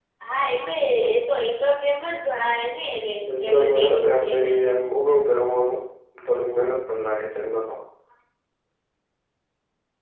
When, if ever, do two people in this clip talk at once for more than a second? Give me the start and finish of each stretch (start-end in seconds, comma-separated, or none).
3.4-4.7